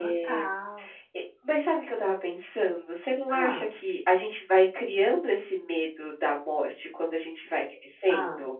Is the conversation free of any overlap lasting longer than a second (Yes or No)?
Yes